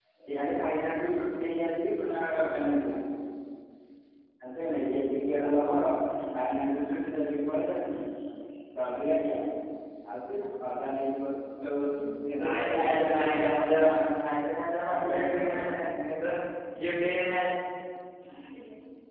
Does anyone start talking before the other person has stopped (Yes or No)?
Yes